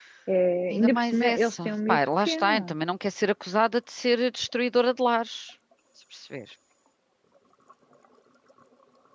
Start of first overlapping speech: 0.7 s

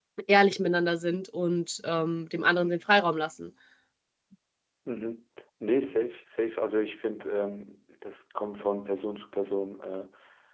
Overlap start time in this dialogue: none

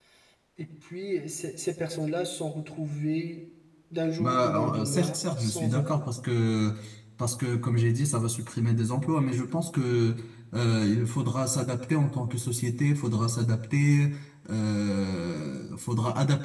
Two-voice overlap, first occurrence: 4.2 s

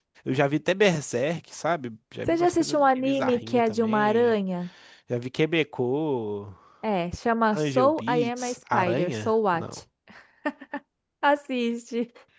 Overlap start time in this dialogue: 2.3 s

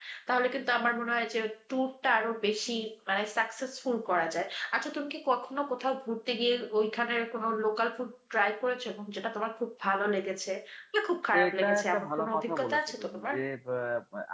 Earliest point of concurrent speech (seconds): 11.4 s

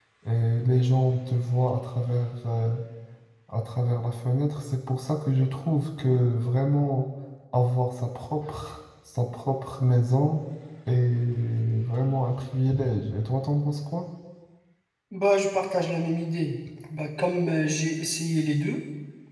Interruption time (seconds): none

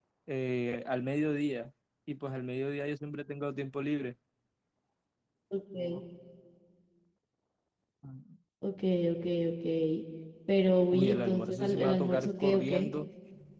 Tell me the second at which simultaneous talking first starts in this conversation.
10.9 s

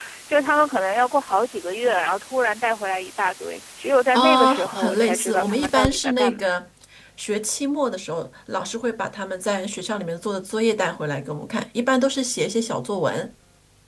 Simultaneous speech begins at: 4.1 s

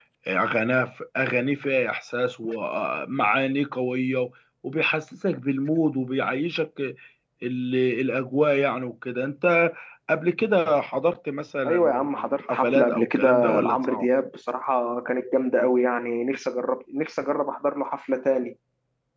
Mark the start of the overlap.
11.6 s

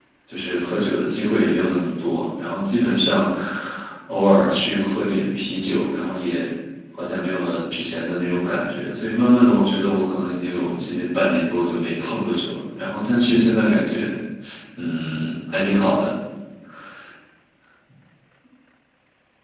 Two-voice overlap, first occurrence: none

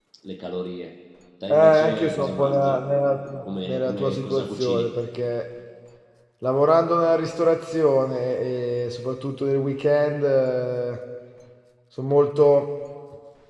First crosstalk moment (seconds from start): 1.5 s

